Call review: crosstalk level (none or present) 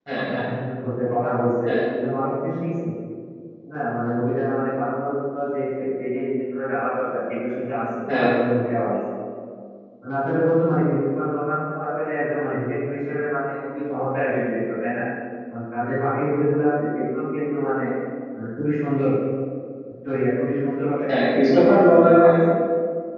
present